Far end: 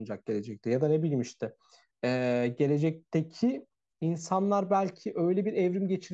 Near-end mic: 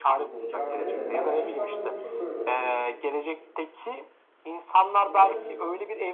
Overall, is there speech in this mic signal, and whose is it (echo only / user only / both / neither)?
both